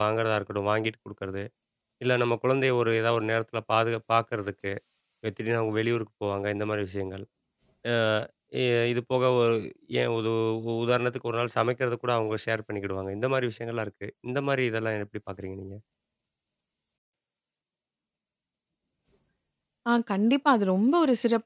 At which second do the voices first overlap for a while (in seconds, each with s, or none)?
none